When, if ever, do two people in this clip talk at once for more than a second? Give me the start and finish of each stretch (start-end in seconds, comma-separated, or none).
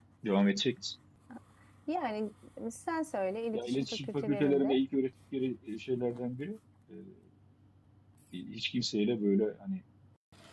3.5-4.8